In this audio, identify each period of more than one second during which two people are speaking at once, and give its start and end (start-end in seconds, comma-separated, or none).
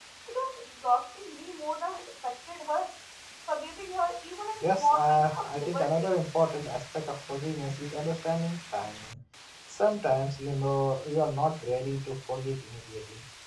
4.6-6.1